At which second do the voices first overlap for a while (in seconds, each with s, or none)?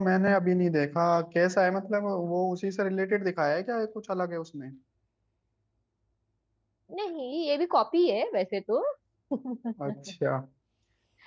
none